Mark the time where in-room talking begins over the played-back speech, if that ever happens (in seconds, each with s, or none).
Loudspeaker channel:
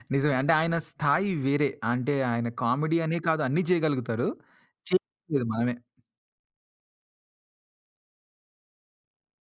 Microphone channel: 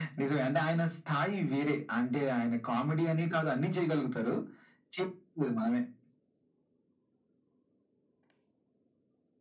none